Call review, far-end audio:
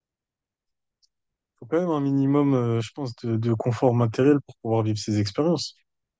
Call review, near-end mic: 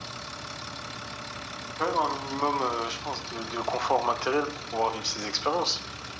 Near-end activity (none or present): none